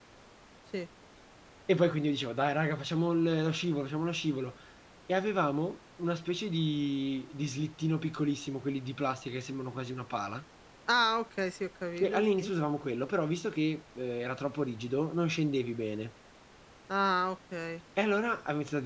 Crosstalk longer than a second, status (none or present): none